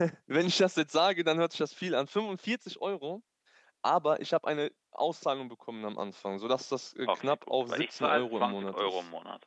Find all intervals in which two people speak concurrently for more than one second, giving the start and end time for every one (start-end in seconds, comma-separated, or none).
7.1-8.9